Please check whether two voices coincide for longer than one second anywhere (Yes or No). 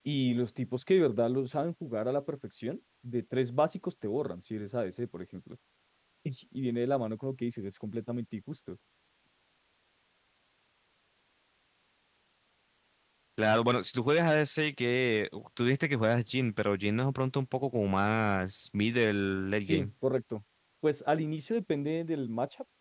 No